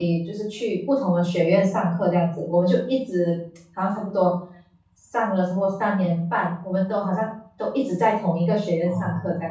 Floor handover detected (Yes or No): Yes